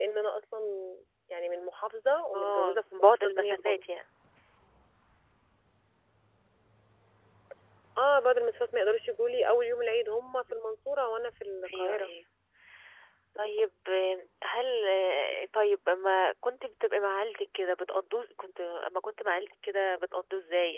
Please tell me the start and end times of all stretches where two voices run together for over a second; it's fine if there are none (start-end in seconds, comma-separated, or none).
2.3-3.8